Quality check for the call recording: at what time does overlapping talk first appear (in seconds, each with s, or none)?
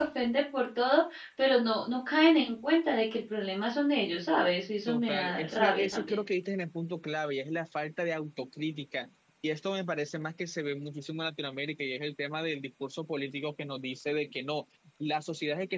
4.9 s